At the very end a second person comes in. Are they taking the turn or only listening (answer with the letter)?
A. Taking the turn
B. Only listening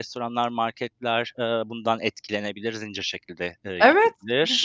A